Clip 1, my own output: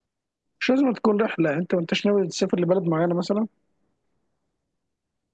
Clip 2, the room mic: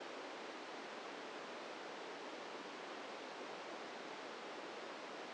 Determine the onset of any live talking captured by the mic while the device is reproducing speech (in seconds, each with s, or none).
none